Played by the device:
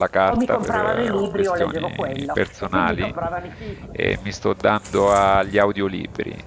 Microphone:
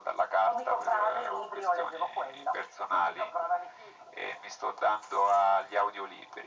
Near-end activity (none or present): none